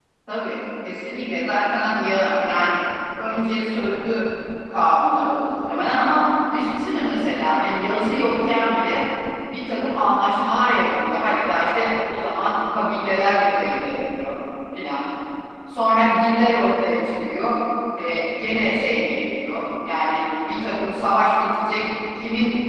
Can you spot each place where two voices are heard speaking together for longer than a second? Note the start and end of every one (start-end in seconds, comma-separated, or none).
none